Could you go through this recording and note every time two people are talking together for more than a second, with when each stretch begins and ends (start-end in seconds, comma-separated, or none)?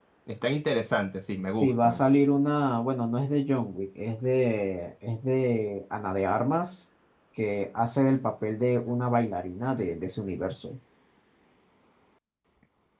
none